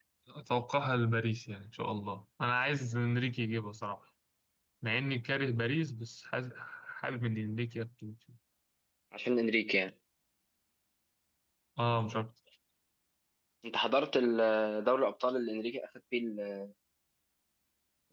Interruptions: none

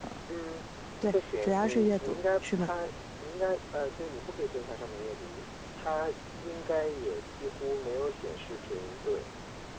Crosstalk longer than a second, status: present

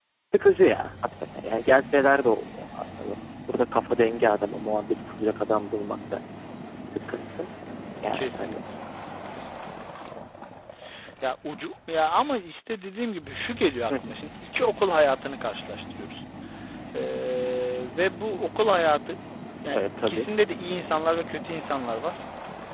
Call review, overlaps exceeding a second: none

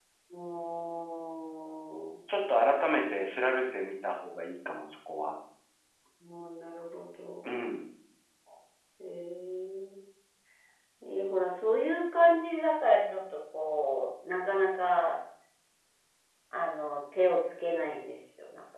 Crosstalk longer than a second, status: none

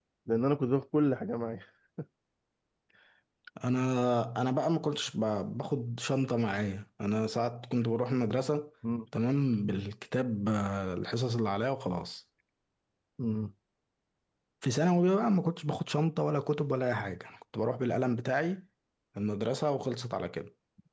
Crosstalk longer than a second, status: none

